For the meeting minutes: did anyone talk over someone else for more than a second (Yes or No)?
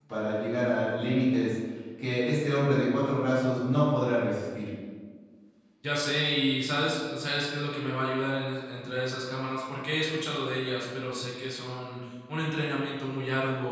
No